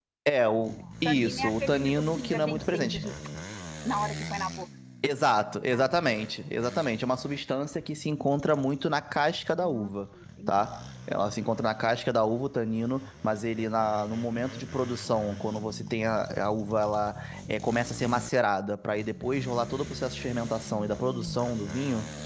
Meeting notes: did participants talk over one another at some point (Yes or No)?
Yes